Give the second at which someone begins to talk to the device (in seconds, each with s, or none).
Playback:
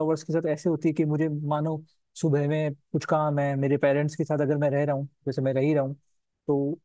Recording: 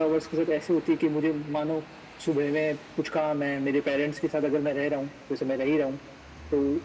none